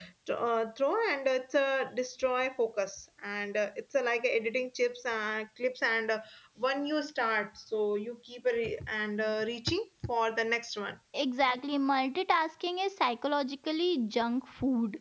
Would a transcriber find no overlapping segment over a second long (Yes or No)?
Yes